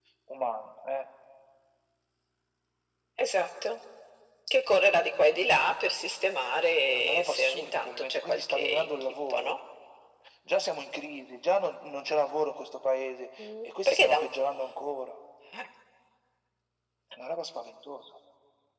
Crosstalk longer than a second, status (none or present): present